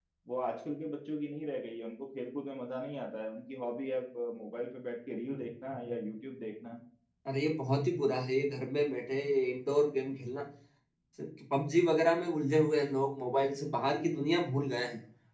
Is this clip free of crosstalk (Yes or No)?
Yes